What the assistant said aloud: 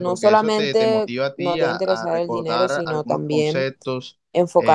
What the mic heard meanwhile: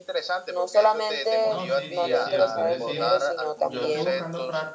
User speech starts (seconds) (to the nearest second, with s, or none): 1 s